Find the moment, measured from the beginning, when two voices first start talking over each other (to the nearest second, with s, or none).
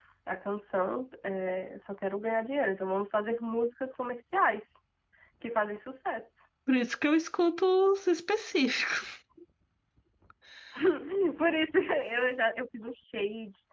none